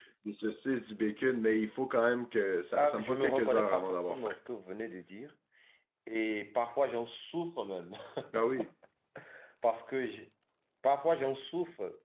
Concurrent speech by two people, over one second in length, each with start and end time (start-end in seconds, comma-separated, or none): 2.8-4.3